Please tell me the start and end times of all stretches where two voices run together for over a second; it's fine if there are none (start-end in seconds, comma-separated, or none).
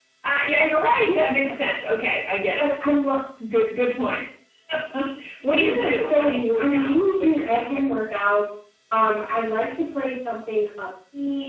5.5-7.8